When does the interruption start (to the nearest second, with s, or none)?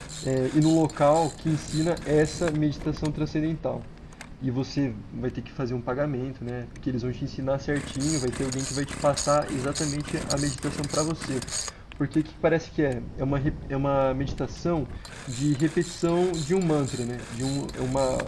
none